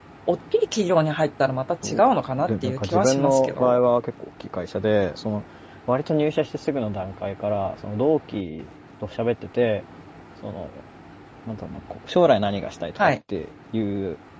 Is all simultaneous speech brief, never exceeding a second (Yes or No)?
No